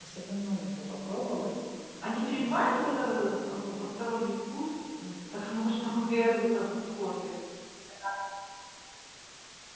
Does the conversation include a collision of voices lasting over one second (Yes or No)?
Yes